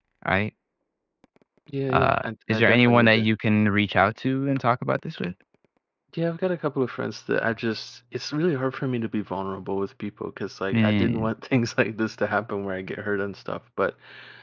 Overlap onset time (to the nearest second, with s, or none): 2 s